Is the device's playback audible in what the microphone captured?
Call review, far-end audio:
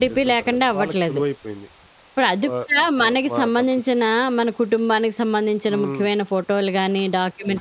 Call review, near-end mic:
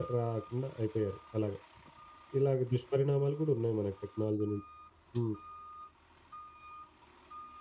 No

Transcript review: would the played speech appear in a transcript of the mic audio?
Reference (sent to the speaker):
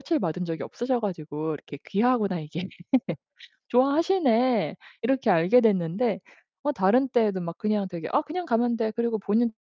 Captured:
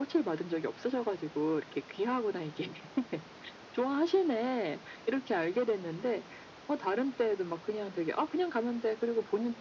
Yes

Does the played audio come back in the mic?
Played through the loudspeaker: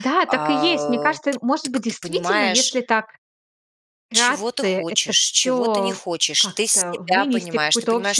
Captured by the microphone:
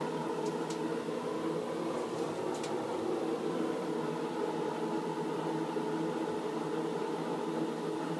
No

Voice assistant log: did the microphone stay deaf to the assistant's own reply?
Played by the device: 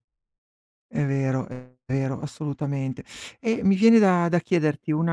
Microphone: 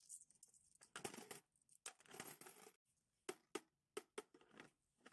Yes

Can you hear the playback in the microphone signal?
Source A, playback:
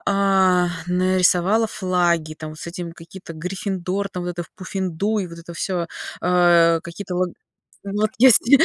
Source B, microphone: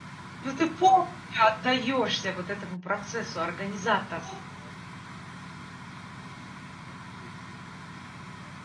No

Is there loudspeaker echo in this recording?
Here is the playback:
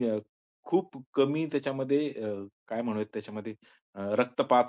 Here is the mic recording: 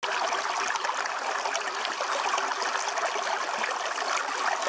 No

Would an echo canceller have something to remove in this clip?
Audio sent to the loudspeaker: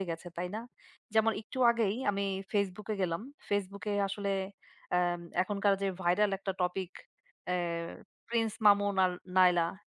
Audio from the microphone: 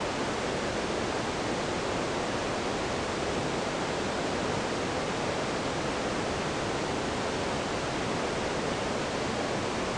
No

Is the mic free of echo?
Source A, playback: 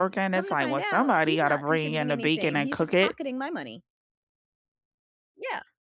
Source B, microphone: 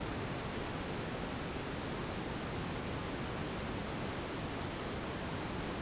Yes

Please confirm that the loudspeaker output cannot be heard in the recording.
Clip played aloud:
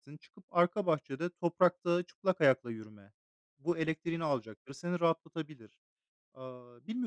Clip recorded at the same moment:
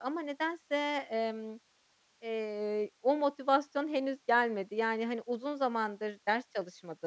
Yes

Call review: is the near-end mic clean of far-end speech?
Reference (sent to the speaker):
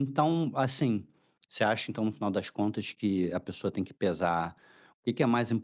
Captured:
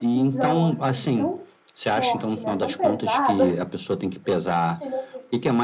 No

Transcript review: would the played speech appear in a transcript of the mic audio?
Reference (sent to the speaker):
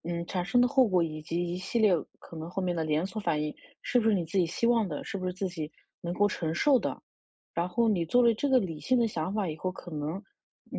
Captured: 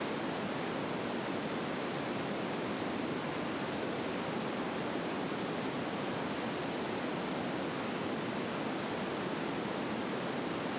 No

